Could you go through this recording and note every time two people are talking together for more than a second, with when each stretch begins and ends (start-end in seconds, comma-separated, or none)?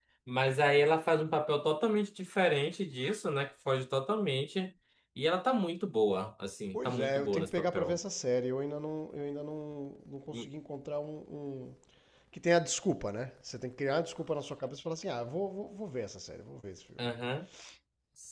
6.7-8.0